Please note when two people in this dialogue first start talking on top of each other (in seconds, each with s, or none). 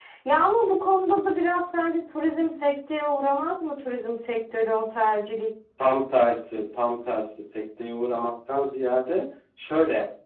none